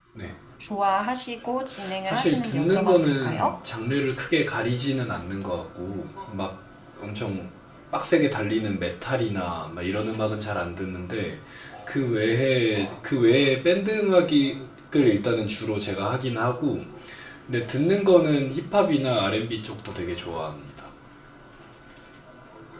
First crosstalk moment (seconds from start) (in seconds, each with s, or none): 2.0 s